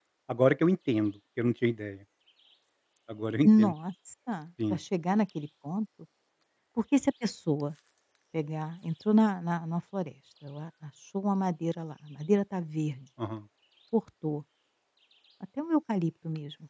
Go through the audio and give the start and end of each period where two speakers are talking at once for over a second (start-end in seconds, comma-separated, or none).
none